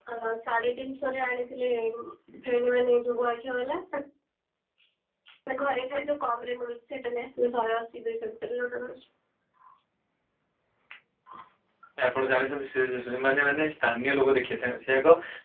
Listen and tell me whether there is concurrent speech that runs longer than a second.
No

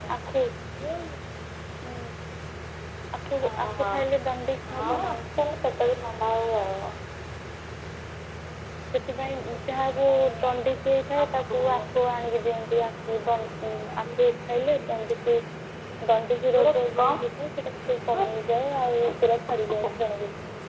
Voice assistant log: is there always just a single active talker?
No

